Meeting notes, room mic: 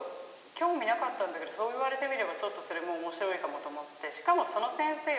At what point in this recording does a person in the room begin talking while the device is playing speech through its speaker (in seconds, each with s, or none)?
none